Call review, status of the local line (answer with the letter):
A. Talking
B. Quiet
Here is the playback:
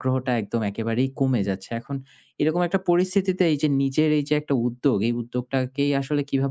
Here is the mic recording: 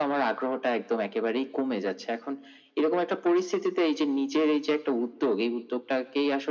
B